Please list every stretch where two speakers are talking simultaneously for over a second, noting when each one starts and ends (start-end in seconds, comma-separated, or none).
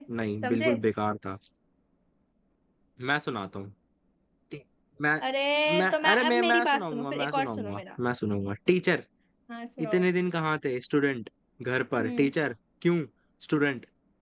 5.8-7.8